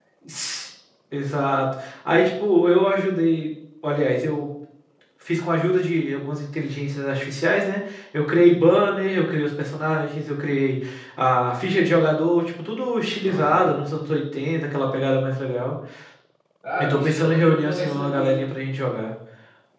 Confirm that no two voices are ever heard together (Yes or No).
No